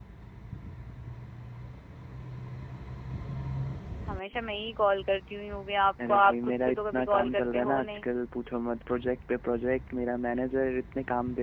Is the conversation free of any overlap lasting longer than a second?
No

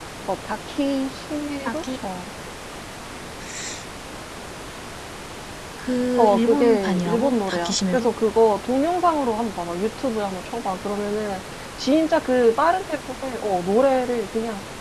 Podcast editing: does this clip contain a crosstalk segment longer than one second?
Yes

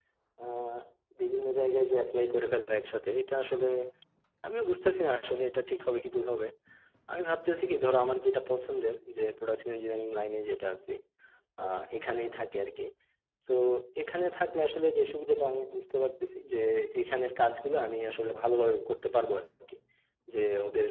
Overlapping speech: No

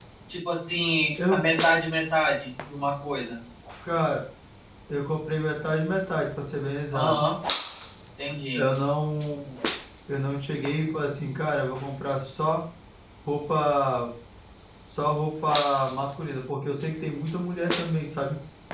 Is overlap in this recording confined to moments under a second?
Yes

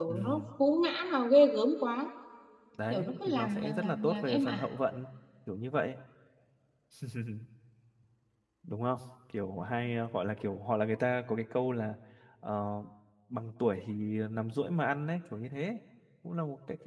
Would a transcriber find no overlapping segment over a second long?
No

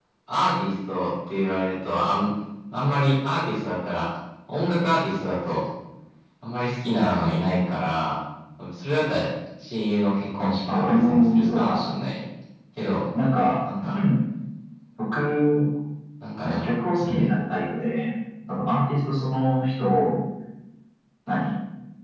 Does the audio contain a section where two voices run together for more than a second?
Yes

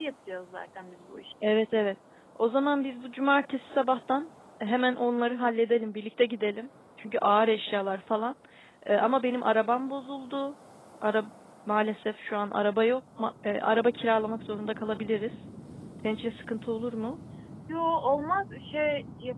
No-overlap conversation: Yes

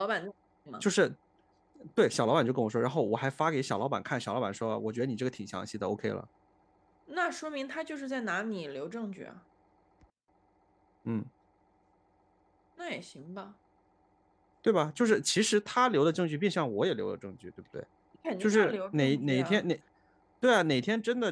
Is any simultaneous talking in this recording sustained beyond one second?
Yes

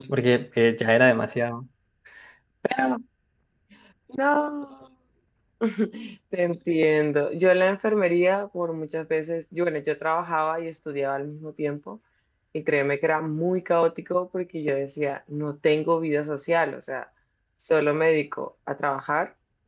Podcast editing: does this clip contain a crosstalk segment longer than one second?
No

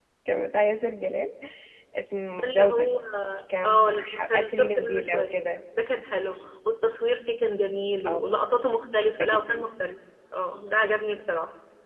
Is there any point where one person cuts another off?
Yes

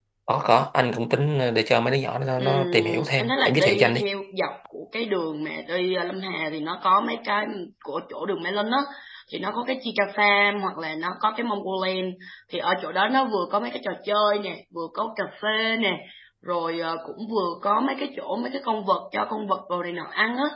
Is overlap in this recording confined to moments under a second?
No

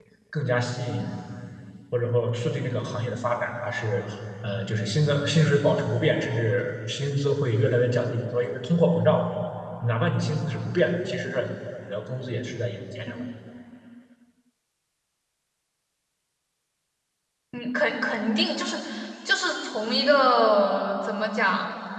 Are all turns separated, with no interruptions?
Yes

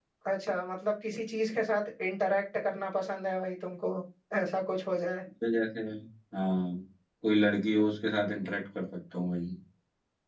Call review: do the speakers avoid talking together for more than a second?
Yes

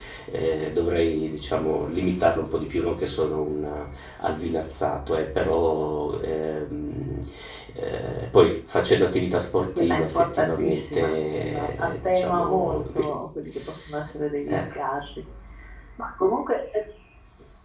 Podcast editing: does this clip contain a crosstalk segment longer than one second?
Yes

